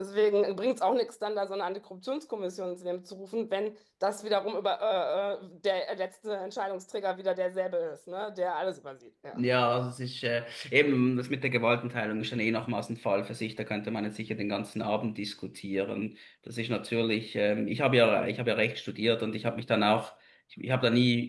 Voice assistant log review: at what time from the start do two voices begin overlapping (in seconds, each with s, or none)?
none